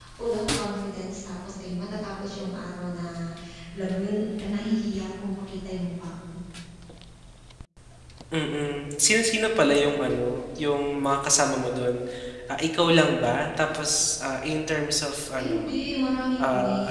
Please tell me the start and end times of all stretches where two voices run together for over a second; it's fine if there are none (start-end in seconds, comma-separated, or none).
none